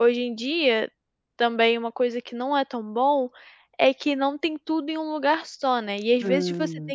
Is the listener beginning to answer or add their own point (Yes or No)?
No